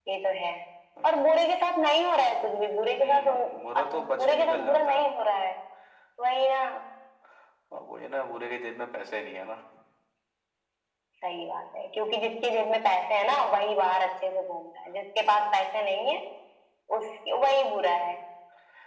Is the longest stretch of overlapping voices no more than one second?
No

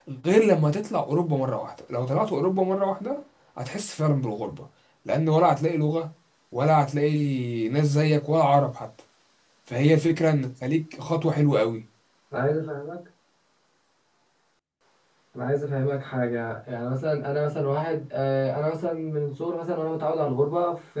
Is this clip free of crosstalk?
Yes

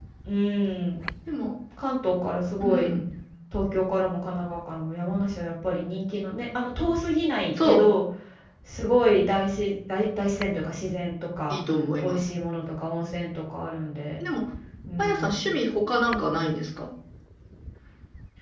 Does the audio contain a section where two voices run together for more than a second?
No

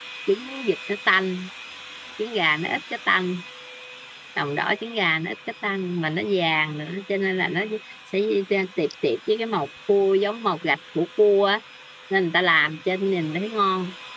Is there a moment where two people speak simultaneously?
No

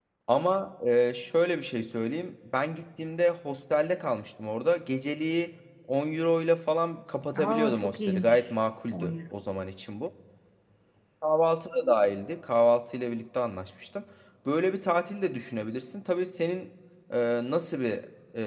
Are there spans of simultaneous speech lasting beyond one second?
Yes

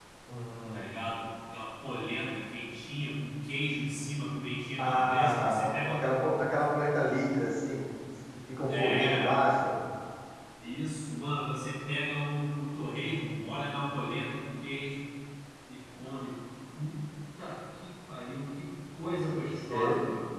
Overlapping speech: Yes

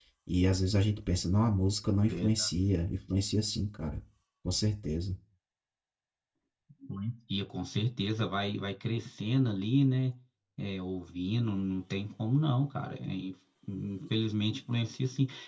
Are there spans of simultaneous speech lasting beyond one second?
No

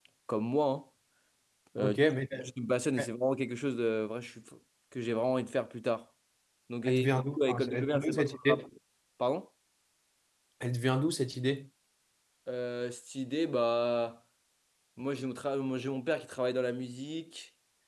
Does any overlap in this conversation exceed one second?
Yes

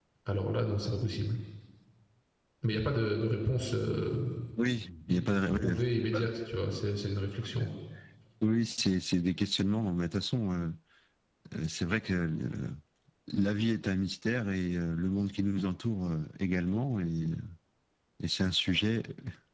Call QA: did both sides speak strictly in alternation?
No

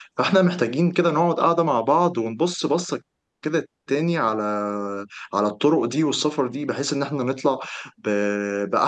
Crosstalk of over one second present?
No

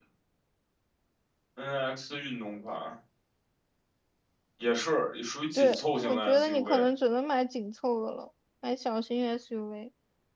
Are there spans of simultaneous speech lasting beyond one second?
Yes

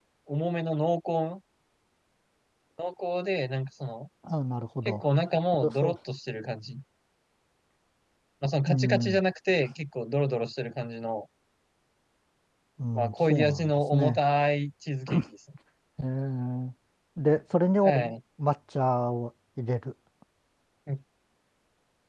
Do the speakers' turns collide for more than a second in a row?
Yes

